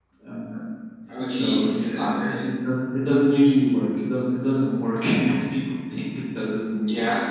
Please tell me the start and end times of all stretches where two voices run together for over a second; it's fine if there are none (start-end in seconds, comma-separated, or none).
1.2-2.4